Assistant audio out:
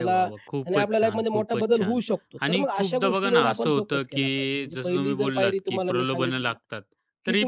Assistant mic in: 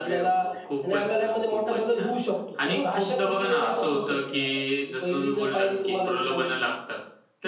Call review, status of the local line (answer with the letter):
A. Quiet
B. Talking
A